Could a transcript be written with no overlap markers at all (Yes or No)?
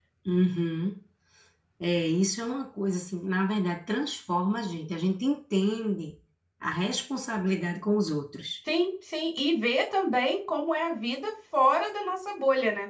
Yes